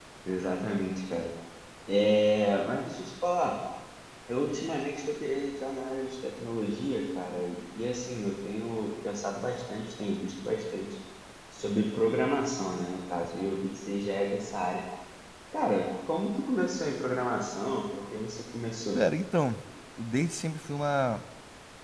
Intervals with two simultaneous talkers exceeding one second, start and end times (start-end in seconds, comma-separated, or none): none